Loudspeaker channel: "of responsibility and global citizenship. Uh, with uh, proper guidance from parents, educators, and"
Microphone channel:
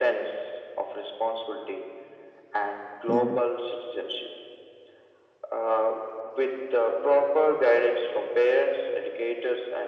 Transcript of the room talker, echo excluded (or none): hmm